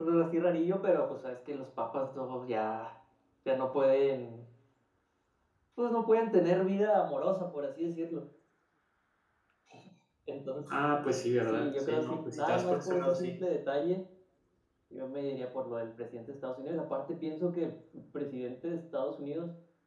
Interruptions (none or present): present